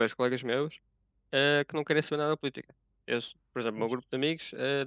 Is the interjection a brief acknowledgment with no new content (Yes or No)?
Yes